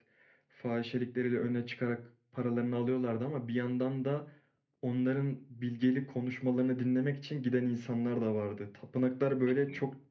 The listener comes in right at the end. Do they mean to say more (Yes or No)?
No